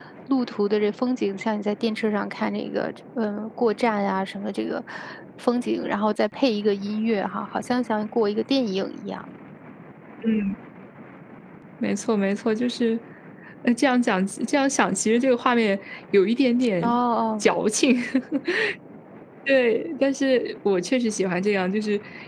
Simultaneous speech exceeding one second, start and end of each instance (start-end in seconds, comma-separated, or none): none